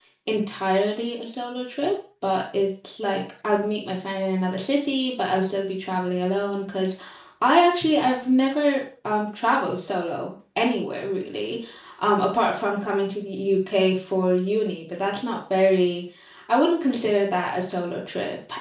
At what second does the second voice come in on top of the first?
none

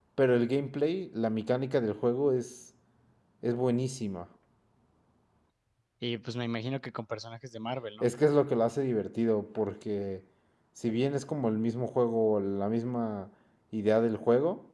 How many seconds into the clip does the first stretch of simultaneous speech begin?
none

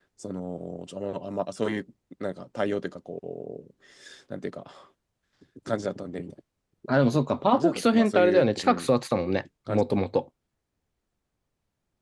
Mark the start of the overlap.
8 s

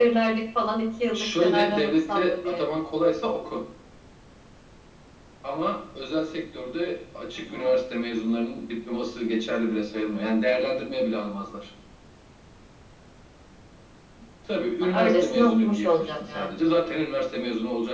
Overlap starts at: 1 s

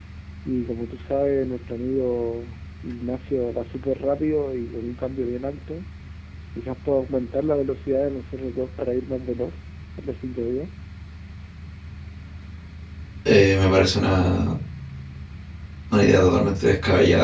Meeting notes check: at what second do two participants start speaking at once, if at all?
none

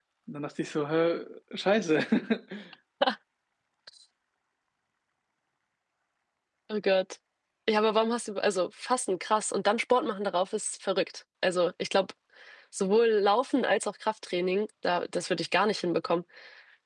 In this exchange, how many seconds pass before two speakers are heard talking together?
none

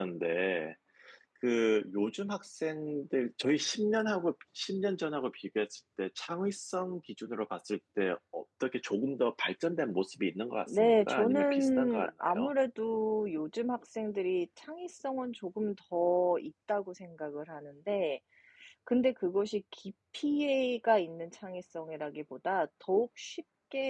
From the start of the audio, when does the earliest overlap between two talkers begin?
11 s

